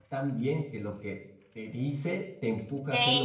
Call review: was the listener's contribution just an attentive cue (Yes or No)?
No